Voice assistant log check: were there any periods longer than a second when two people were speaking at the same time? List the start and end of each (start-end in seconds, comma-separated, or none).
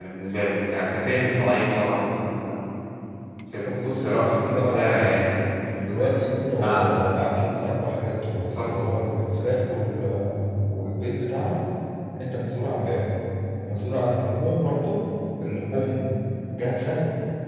3.6-5.2